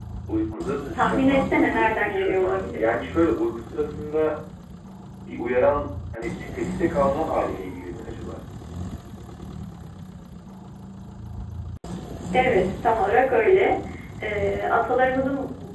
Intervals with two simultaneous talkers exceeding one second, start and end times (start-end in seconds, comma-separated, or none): 0.9-2.8